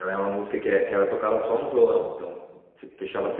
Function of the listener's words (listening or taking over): listening